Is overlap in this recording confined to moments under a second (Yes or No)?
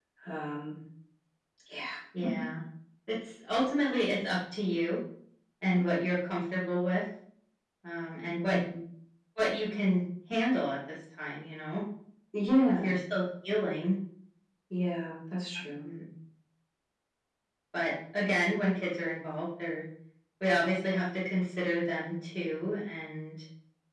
Yes